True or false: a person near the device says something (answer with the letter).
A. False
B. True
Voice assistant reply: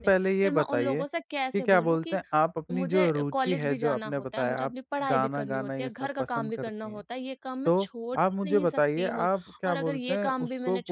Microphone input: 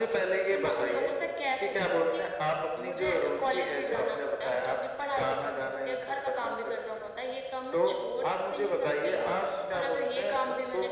A